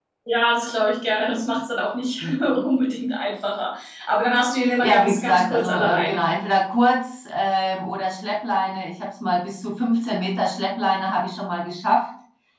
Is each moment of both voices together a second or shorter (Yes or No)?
No